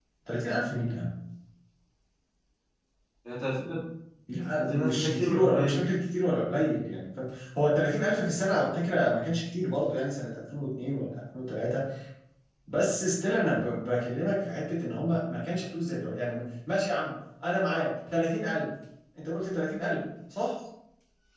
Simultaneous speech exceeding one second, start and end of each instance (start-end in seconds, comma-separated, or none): 4.6-5.8